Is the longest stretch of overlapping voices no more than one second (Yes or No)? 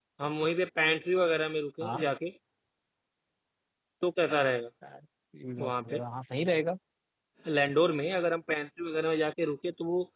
Yes